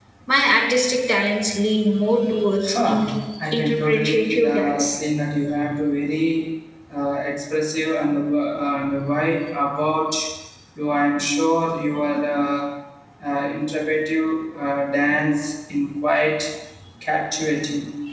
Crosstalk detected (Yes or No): Yes